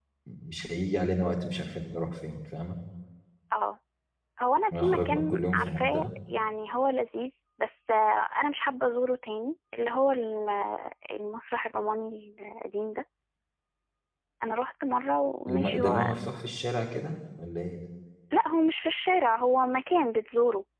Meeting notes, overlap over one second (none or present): present